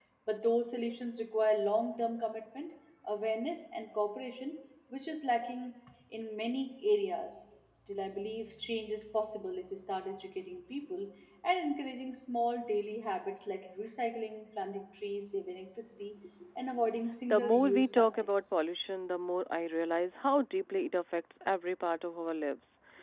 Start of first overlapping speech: 17 s

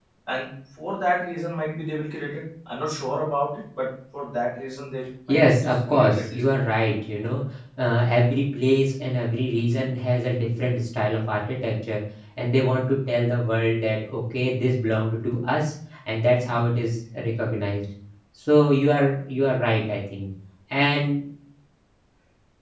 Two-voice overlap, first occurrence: 5 s

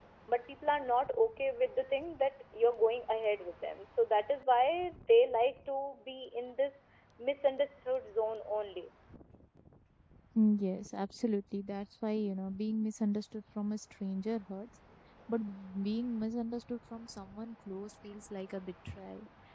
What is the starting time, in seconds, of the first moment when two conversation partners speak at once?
none

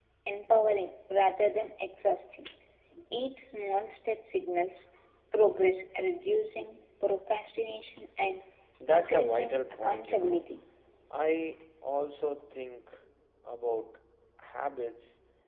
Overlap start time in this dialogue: 9 s

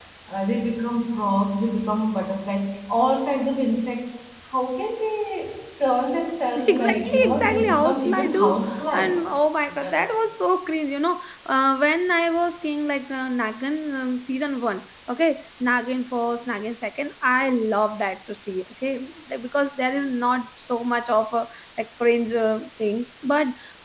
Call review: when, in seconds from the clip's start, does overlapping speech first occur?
7 s

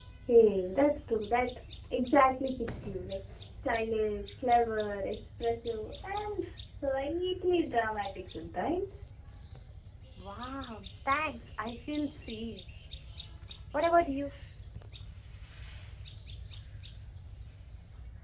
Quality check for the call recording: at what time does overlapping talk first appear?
none

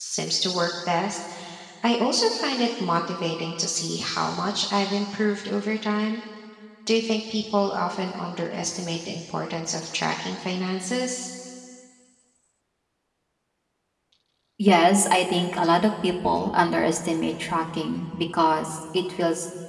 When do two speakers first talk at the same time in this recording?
none

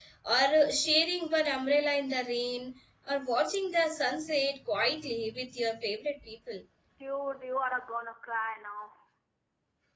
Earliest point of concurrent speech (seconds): none

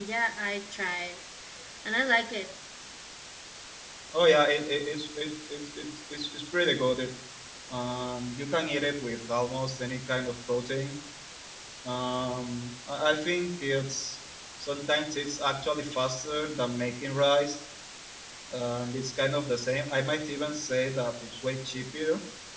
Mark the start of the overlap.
none

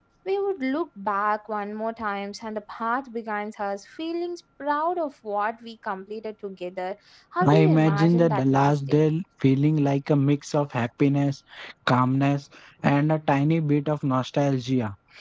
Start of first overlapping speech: 7 s

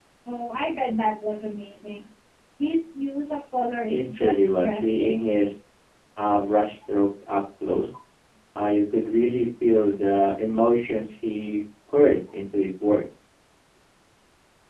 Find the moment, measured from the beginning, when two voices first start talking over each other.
4 s

